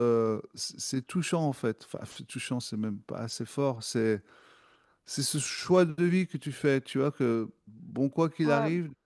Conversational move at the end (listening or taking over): listening